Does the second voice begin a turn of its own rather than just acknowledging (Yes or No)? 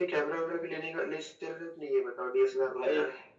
Yes